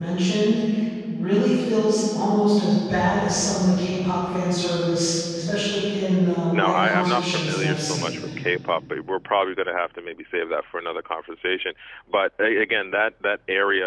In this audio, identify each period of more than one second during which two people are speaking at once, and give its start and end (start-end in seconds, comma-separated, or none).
6.5-8.2